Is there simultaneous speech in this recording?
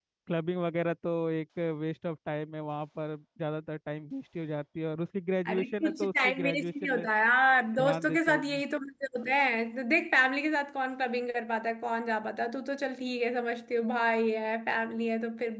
Yes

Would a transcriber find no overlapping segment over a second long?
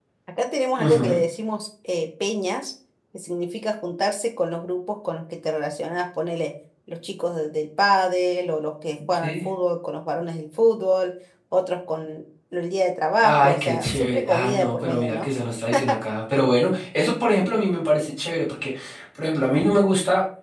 No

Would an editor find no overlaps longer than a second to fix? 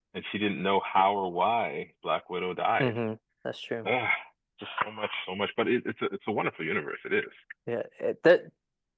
Yes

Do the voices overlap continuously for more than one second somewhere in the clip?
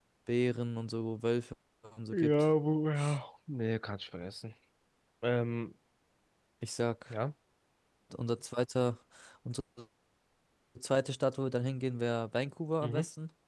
No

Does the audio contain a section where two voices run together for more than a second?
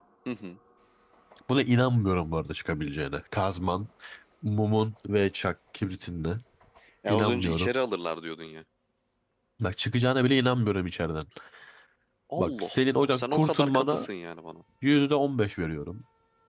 Yes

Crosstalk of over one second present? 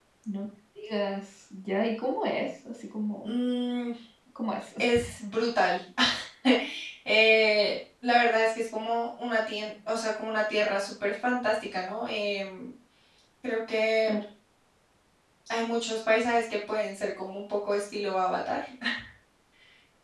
No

